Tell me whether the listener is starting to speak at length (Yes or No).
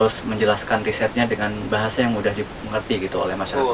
Yes